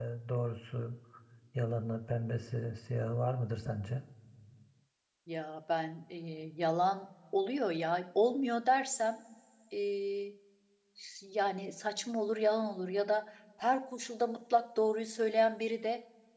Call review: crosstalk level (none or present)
none